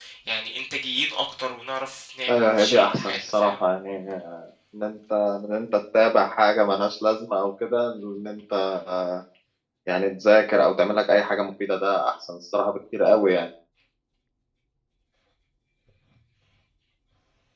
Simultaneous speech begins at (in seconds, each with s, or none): 2.3 s